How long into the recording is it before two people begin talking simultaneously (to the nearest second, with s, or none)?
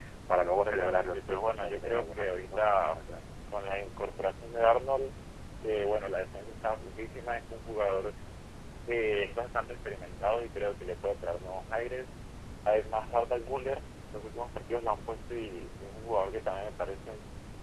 1 s